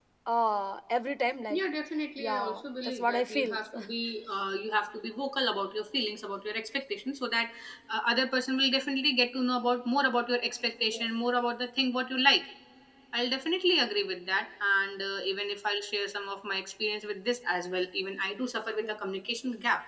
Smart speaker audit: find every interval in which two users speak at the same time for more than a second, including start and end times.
2.2-3.8

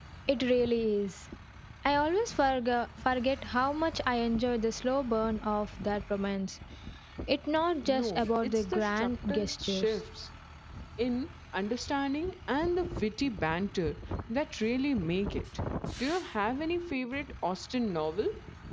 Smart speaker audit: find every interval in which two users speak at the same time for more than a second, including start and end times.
7.9-10.0

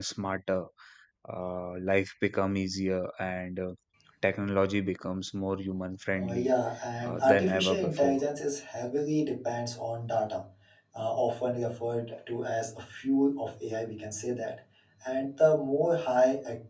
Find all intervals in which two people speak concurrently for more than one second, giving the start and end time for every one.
7.0-8.2

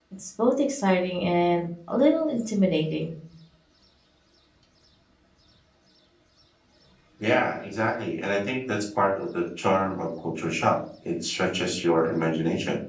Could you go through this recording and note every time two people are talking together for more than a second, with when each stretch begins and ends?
none

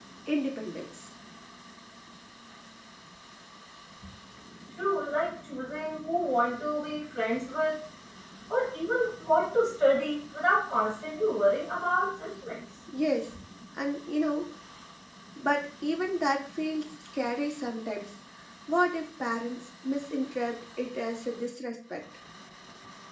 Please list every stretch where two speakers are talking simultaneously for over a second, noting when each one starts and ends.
none

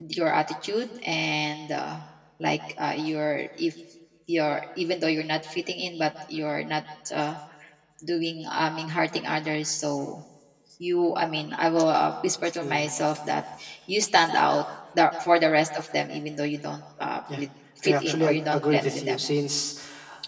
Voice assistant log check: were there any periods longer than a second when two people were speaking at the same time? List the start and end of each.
17.8-19.2

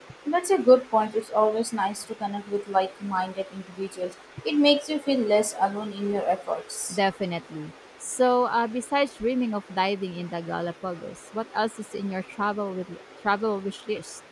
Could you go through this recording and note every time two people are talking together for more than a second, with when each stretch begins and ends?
none

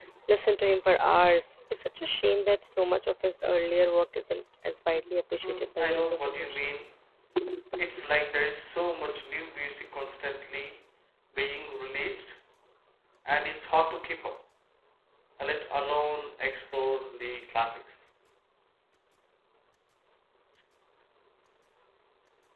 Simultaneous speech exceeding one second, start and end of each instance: 5.4-6.7

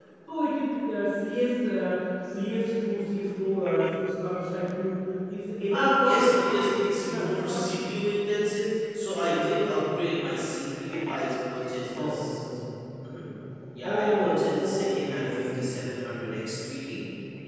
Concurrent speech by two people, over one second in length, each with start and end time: 5.7-7.7, 13.9-16.2

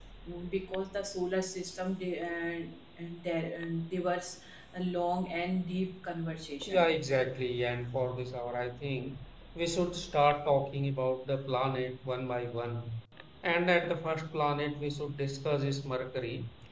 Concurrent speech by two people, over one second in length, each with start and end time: none

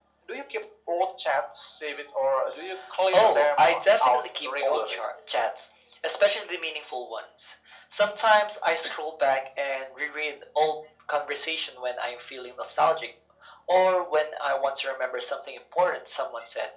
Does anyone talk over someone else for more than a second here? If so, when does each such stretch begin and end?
3.1-5.0

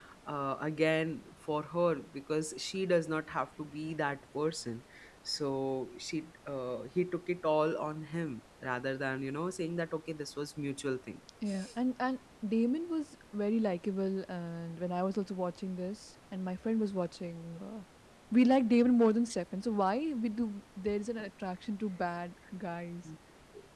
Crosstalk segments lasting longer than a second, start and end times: none

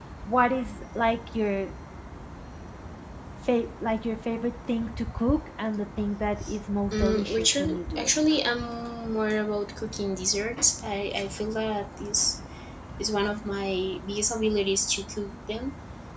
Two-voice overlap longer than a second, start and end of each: 6.9-8.1

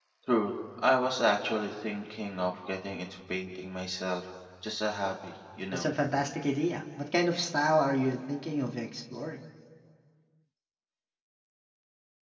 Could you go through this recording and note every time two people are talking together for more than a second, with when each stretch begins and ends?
none

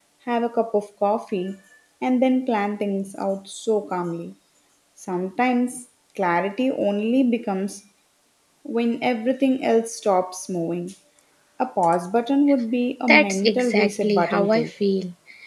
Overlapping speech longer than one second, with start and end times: 13.1-14.7

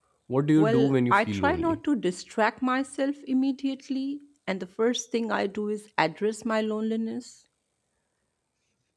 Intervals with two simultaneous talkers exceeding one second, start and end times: 0.6-1.8

